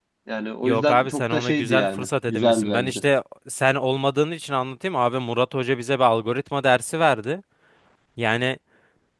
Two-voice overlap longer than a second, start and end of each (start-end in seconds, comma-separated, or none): 0.6-3.0